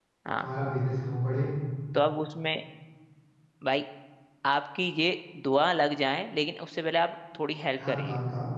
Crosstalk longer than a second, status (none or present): none